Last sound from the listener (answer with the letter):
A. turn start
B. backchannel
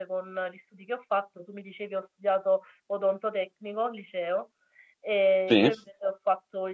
B